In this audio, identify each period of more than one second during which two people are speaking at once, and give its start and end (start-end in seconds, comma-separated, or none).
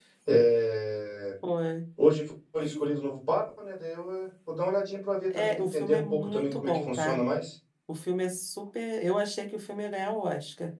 5.4-7.2